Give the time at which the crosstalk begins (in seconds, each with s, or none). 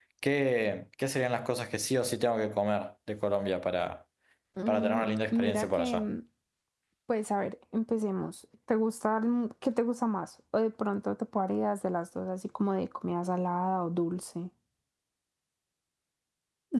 4.7 s